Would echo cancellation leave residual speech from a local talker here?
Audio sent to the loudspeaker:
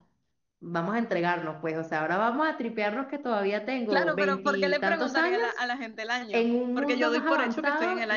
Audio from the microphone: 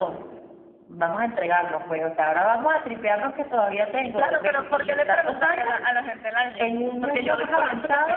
No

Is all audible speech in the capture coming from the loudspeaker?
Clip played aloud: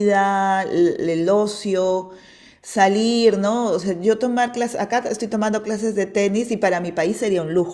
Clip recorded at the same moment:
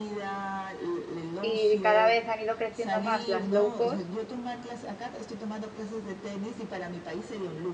No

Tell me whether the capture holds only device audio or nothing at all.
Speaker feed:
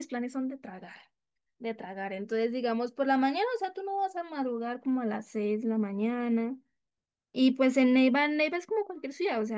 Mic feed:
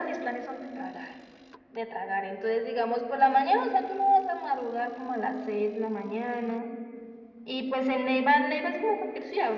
Yes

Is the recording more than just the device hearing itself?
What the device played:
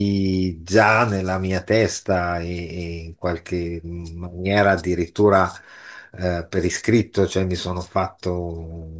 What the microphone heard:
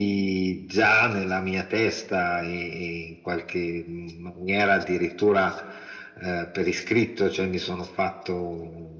No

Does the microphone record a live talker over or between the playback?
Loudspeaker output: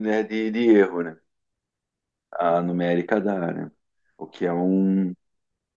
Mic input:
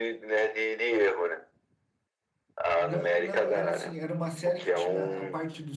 Yes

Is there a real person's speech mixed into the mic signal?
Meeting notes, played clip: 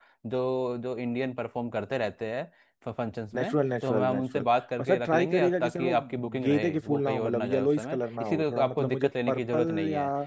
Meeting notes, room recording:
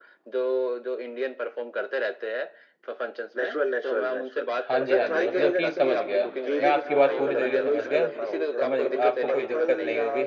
Yes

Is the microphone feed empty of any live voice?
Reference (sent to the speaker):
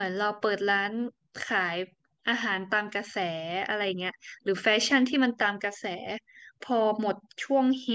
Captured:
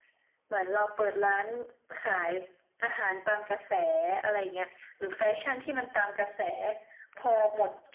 Yes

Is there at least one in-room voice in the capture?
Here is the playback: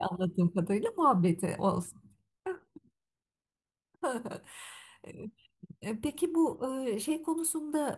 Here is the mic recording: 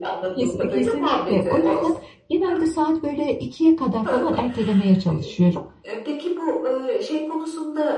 Yes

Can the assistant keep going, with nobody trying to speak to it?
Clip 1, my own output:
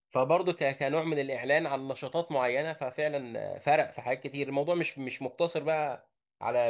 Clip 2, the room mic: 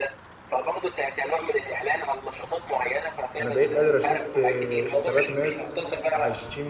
No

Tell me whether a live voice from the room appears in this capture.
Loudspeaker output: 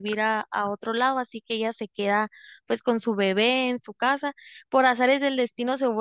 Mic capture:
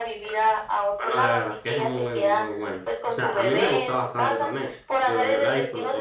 Yes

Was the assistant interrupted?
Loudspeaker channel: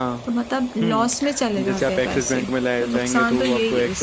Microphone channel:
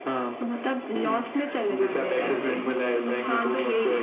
Yes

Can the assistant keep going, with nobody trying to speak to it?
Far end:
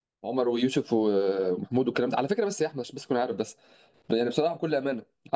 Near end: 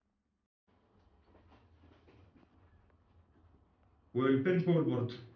No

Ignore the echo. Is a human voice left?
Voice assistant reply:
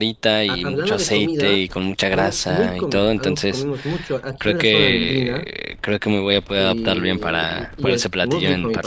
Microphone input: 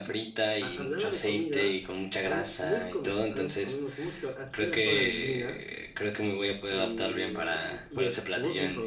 No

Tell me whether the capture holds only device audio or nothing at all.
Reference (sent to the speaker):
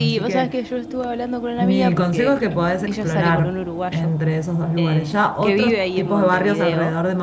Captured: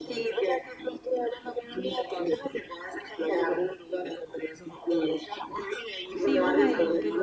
No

